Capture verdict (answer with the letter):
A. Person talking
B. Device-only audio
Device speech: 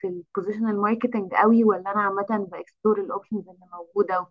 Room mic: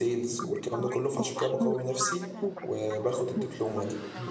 A